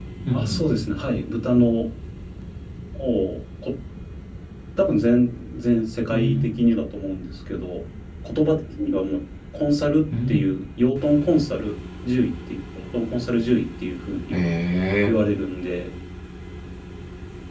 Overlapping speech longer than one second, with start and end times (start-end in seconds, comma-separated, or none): none